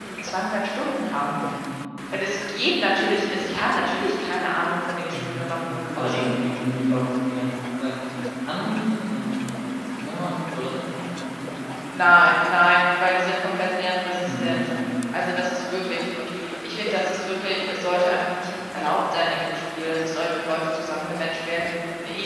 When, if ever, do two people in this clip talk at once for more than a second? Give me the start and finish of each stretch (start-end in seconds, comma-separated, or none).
none